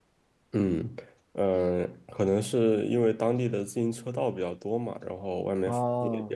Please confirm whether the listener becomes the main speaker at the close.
Yes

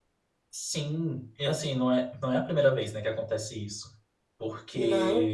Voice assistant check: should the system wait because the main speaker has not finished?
Yes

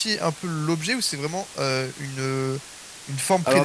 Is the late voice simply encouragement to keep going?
Yes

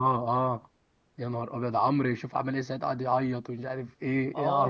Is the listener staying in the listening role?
No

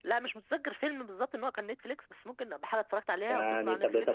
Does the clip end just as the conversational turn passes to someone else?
Yes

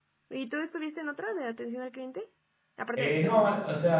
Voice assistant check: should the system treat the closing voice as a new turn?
Yes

